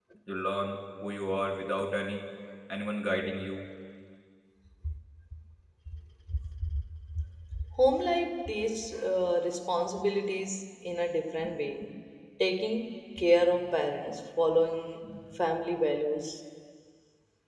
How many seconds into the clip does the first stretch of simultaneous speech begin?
none

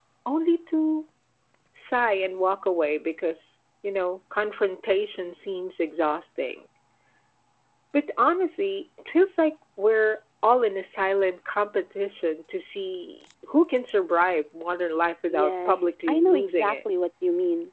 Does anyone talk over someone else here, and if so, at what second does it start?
15.3 s

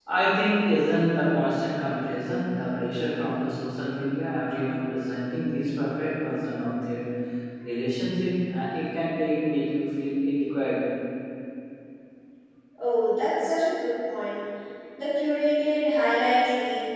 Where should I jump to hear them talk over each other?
none

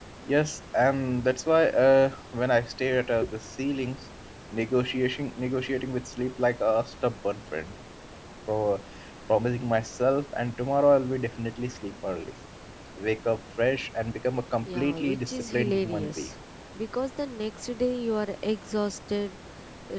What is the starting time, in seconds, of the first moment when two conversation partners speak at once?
14.7 s

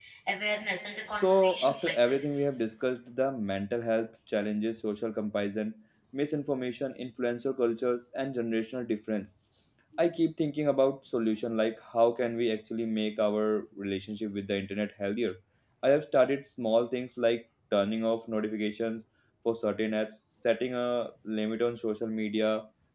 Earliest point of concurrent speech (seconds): 1.1 s

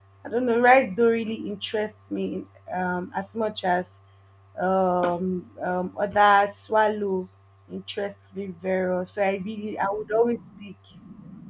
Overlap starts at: none

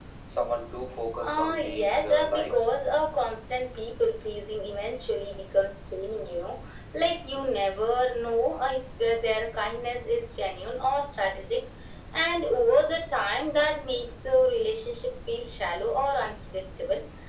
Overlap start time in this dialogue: 1.2 s

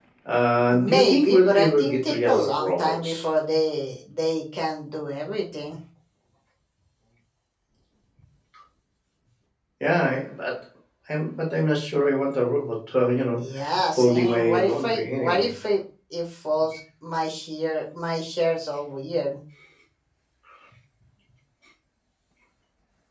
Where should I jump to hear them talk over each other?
0.7 s

